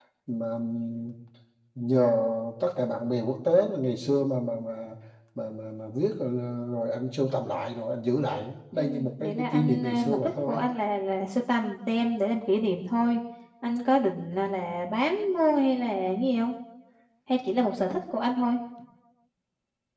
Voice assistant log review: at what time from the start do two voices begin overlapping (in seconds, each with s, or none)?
8.7 s